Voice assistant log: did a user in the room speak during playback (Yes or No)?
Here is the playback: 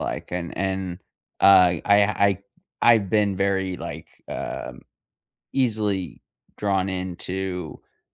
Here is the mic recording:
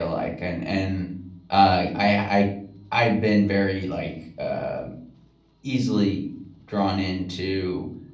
No